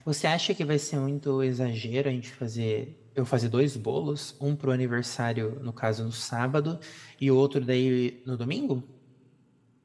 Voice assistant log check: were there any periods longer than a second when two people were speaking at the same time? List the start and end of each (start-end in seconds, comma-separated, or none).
none